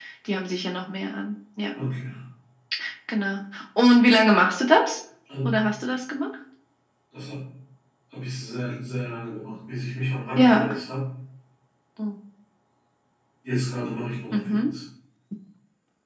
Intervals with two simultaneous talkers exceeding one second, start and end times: none

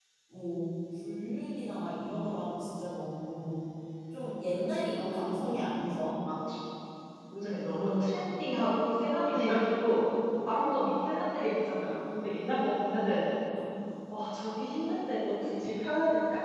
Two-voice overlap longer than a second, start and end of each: none

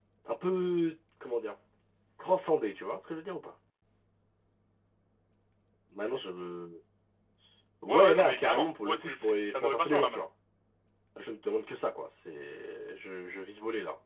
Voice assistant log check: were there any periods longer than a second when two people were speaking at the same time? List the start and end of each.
7.9-10.2

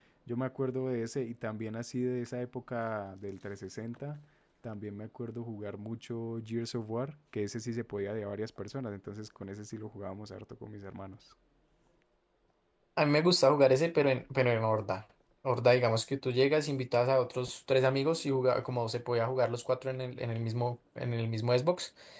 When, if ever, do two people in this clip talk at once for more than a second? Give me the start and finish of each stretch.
none

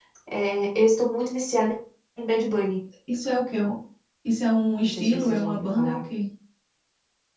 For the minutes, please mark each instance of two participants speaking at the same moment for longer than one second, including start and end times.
4.8-6.0

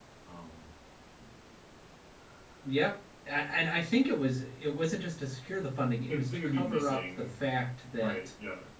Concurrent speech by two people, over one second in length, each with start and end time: 6.1-7.4

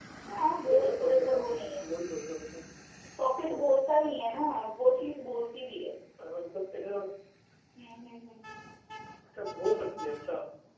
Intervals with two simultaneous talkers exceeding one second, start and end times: 0.6-1.8

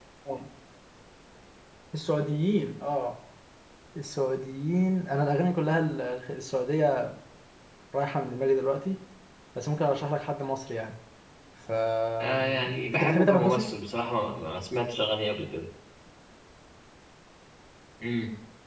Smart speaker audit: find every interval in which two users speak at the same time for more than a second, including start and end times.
12.4-13.7

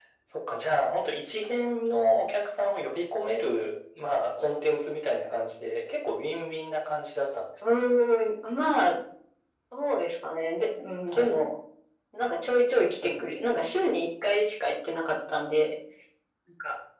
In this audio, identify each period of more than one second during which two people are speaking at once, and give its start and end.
none

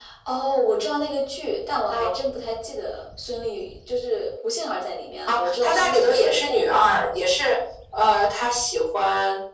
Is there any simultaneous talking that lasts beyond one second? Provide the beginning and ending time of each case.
5.3-6.6

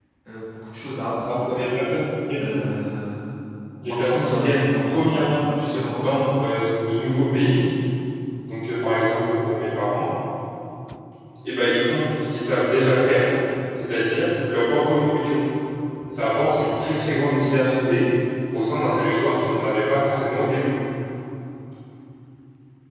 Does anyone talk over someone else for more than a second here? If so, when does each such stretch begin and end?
3.8-5.2

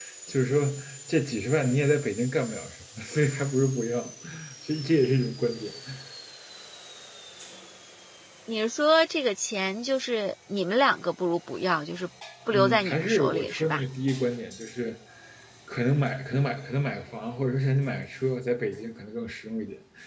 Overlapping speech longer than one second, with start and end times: 12.5-13.8

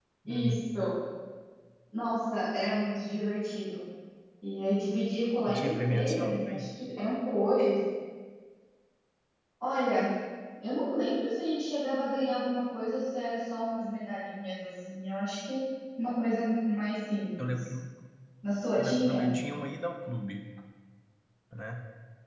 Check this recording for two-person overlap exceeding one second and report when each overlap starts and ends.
5.5-6.7

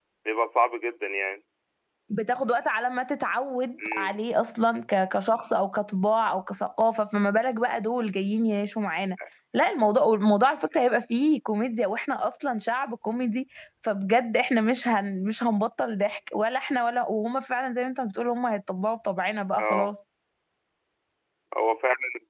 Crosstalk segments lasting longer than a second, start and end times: none

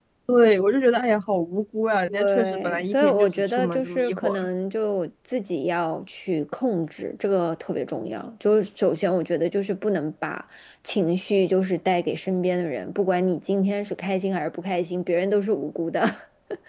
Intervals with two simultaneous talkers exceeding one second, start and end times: 2.1-4.5

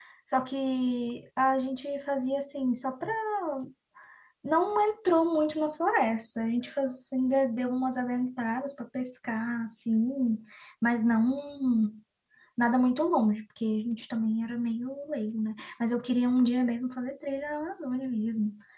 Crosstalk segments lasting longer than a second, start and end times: none

